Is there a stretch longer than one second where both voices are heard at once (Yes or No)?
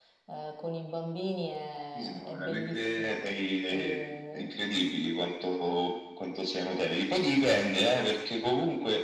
Yes